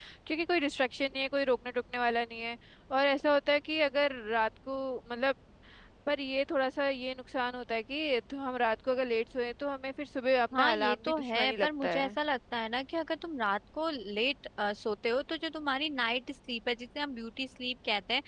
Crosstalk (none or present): present